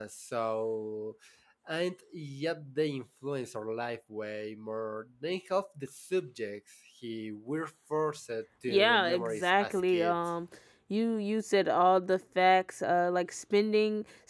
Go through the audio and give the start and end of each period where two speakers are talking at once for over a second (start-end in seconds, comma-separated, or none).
8.7-10.2